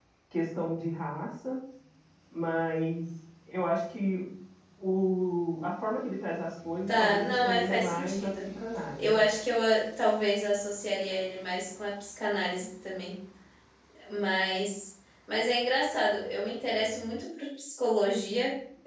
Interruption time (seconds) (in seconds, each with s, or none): 6.9 s